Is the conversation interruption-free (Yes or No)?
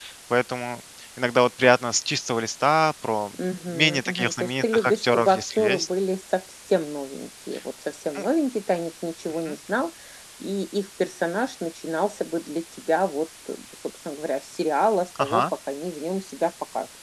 No